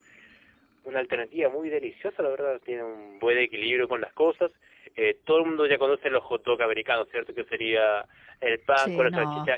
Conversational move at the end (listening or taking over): listening